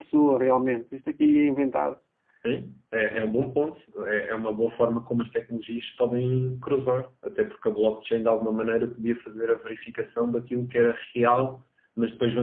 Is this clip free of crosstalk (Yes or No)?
Yes